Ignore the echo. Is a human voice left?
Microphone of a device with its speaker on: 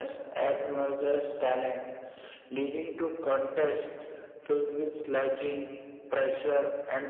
No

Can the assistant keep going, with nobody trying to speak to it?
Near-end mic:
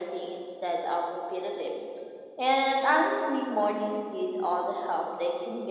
Yes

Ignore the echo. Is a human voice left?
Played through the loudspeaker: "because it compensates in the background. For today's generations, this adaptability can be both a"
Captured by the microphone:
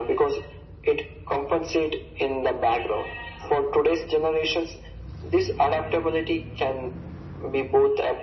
No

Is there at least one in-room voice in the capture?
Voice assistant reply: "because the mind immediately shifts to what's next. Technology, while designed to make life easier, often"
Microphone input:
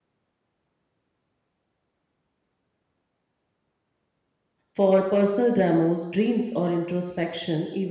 Yes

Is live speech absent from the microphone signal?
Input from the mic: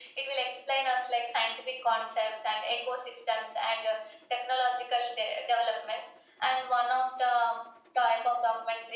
Yes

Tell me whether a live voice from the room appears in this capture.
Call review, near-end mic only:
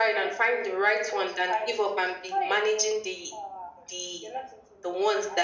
No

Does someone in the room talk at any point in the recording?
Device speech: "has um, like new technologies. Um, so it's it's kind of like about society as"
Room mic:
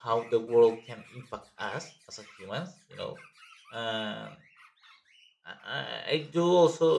Yes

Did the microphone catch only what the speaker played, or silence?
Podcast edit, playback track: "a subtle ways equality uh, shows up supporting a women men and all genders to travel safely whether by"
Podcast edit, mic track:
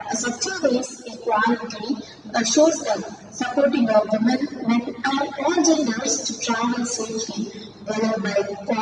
Yes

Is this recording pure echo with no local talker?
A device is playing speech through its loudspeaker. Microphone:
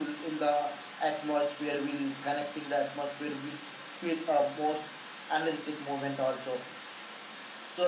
Yes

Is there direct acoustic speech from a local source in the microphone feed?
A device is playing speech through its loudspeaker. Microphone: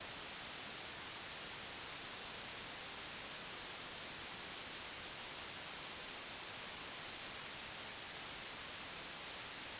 No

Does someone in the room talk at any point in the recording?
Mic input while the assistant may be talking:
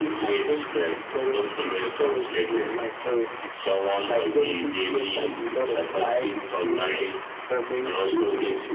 No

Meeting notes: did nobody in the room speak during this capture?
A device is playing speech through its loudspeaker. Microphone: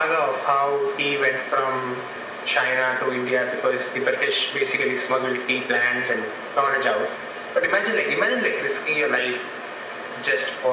Yes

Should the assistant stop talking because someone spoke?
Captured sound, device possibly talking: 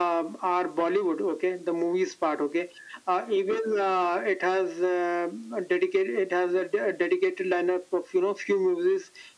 No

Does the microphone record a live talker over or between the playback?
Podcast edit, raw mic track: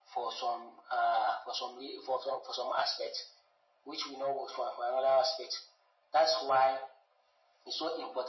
No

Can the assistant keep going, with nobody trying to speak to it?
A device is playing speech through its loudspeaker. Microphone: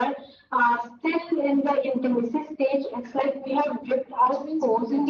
No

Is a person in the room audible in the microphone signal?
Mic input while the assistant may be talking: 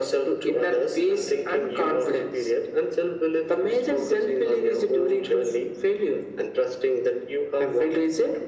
No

